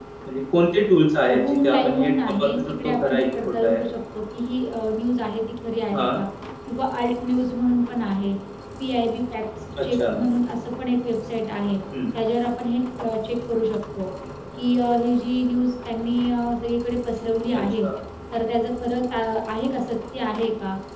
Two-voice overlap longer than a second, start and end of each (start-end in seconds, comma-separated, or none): 1.2-3.8